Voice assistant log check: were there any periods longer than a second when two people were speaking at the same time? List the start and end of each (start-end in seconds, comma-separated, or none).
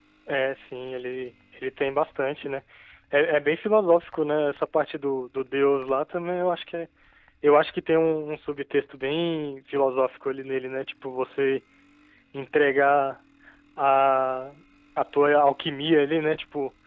none